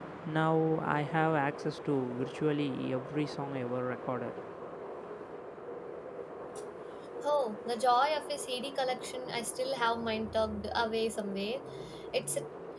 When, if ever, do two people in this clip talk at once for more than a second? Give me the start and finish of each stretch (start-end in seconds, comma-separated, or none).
none